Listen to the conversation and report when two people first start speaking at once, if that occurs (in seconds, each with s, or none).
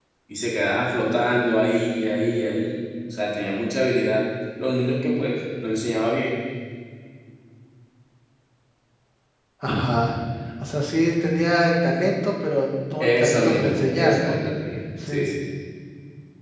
13.0 s